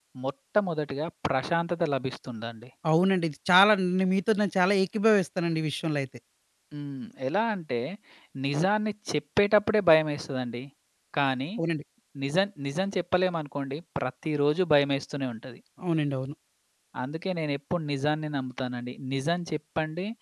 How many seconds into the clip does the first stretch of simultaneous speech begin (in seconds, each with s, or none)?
none